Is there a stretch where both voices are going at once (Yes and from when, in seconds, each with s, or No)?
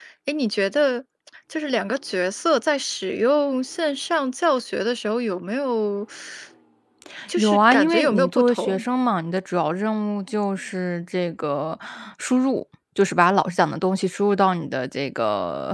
Yes, from 7.4 s